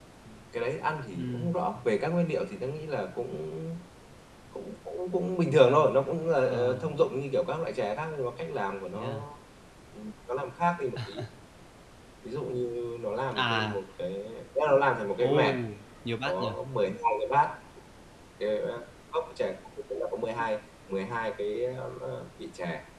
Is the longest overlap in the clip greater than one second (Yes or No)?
No